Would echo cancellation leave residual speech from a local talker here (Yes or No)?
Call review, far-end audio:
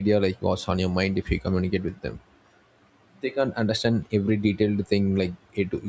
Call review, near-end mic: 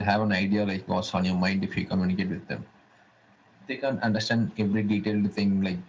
No